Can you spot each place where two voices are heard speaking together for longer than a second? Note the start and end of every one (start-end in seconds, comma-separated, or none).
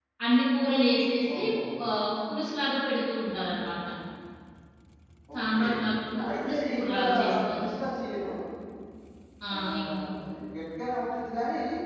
6.4-7.7